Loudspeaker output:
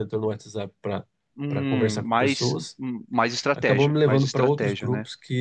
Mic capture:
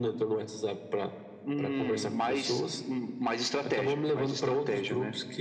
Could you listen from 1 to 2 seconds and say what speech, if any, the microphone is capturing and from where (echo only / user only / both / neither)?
echo only